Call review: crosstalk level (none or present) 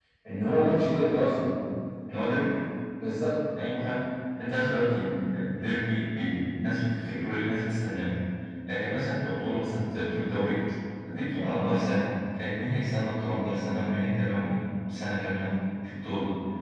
none